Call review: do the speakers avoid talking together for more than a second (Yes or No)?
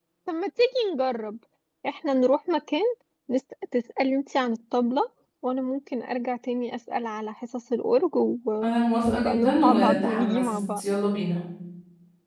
No